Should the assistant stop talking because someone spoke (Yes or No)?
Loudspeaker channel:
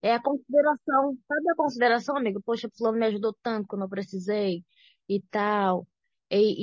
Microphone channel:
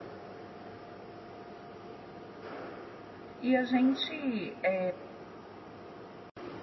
Yes